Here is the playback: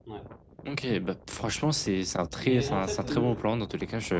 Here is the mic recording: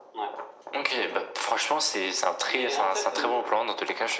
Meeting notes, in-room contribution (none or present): none